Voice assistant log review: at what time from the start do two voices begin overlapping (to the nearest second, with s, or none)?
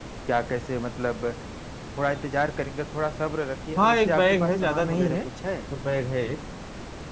4 s